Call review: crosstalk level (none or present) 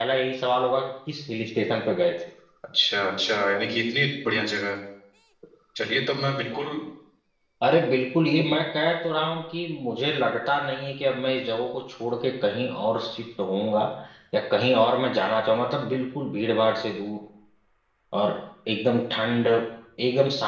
none